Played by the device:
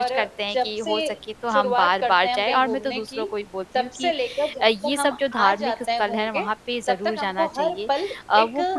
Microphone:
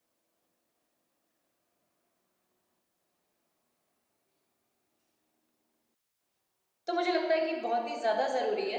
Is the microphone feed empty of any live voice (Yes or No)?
No